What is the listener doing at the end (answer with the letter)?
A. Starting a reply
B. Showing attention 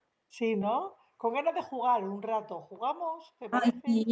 A